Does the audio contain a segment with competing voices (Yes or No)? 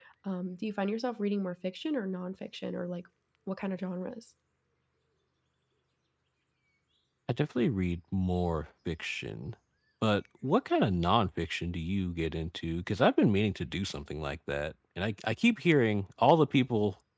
No